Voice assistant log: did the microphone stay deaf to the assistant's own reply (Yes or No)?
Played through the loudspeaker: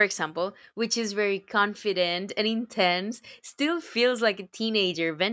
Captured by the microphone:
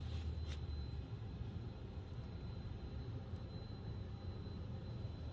Yes